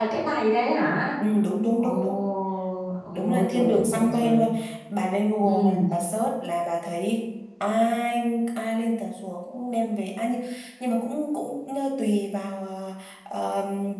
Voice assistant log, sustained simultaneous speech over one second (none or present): present